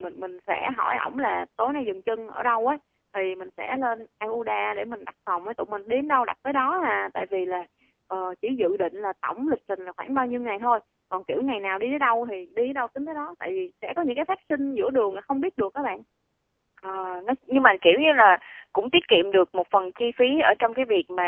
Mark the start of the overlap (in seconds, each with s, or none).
none